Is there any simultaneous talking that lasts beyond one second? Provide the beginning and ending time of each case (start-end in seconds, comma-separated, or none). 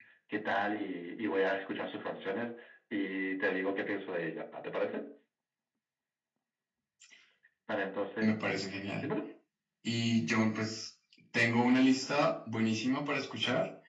none